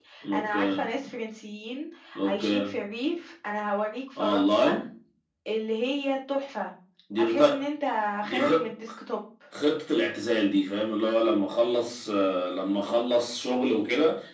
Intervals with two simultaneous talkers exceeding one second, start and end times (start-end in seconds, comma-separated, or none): none